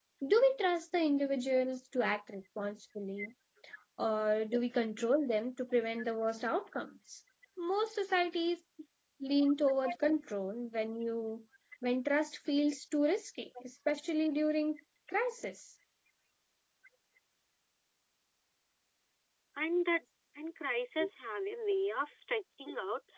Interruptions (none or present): none